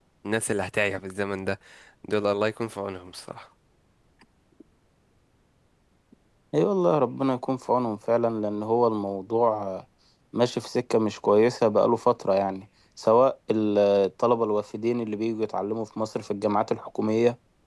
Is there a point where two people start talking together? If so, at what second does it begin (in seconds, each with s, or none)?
none